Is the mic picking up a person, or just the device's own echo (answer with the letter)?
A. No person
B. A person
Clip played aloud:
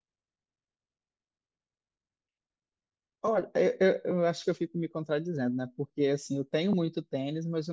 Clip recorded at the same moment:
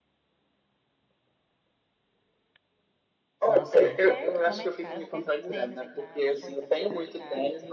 B